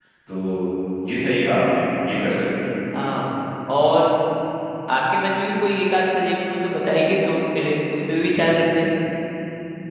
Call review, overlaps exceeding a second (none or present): none